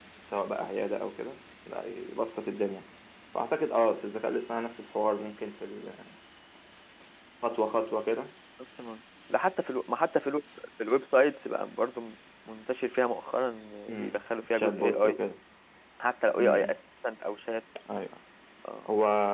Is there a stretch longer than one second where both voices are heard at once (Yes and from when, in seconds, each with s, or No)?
Yes, from 13.9 s